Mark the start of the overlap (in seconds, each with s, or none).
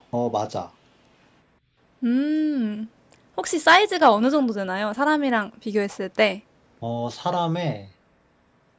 none